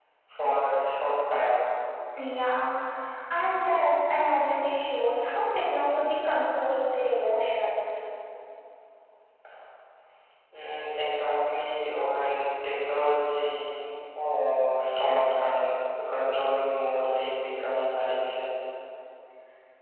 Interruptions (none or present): none